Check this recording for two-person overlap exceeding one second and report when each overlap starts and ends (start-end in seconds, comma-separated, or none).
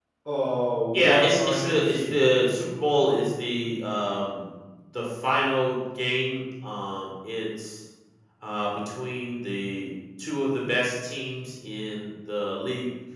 0.9-2.2